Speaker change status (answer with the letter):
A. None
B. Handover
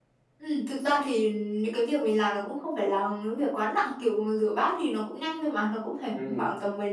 A